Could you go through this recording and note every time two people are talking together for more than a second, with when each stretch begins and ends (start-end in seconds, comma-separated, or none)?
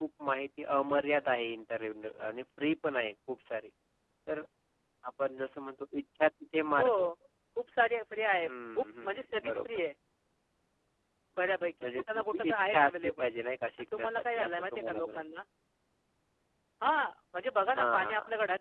8.4-9.7, 12.0-13.3, 13.8-15.2